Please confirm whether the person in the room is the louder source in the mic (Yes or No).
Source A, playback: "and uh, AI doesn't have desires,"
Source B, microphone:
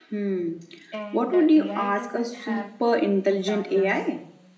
Yes